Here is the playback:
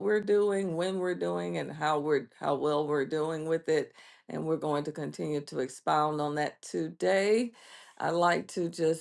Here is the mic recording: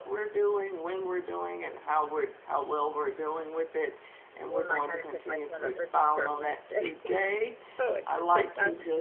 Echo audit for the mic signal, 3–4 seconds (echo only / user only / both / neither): echo only